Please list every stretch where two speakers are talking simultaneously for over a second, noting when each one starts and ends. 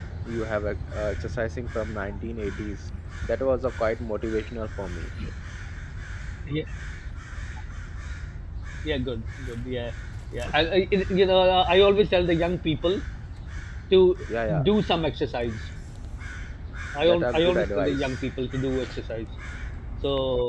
17.0-18.2

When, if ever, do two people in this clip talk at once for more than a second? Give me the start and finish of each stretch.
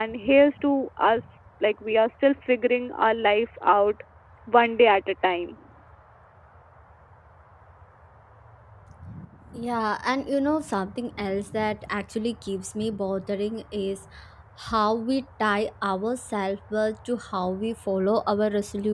none

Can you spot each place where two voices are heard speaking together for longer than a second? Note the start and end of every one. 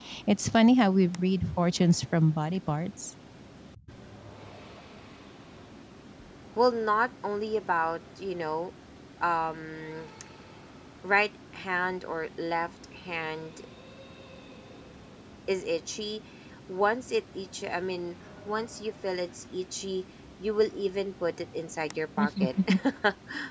none

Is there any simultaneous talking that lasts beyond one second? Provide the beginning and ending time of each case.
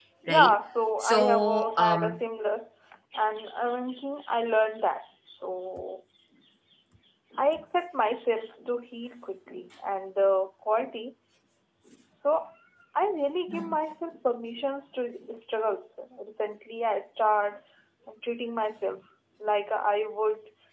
1.0-2.2

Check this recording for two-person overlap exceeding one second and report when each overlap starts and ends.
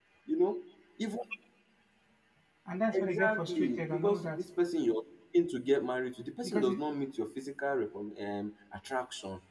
2.9-4.4

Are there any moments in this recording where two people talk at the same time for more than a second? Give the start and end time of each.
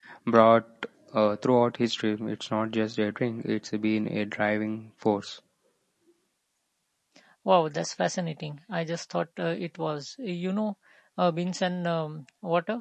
none

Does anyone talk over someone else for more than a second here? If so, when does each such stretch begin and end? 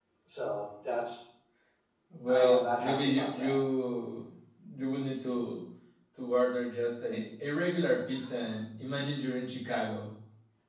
2.3-3.6

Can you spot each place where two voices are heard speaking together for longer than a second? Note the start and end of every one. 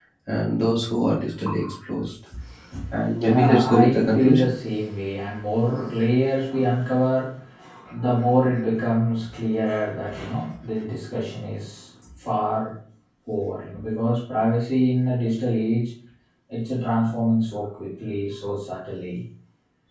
3.2-4.5

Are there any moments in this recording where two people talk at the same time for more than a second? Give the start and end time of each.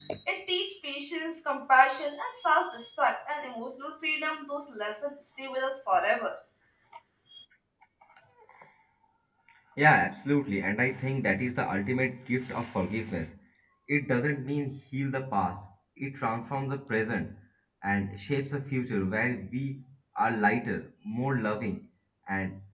none

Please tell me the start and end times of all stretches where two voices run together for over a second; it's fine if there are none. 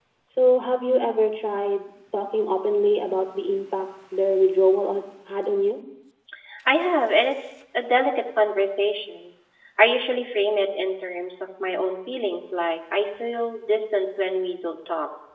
none

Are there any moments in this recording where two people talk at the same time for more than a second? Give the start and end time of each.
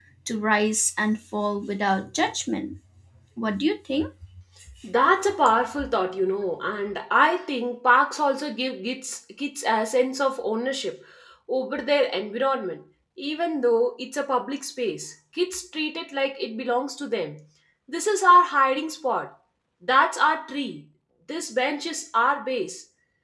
none

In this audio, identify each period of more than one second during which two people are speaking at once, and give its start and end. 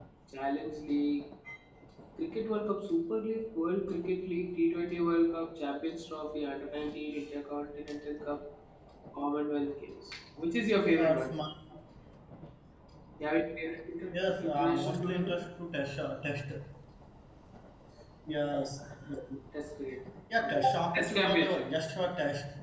14.1-15.4, 20.4-21.7

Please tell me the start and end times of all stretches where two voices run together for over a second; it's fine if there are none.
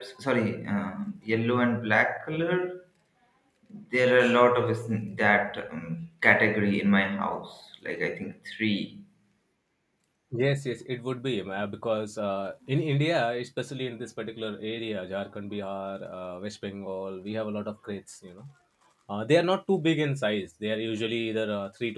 none

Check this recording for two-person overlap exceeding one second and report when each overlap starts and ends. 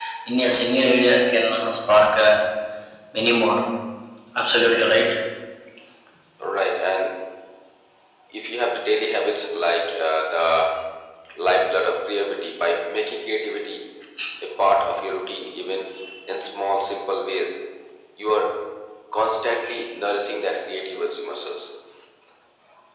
none

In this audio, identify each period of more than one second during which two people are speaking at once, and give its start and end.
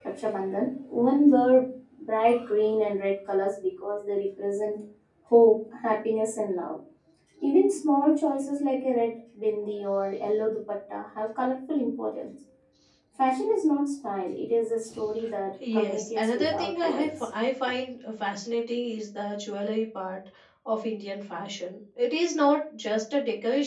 15.7-17.3

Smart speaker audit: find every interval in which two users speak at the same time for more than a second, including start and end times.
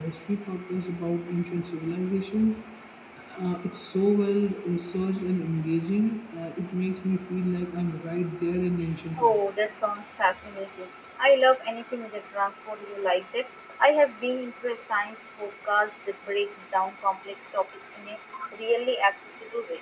none

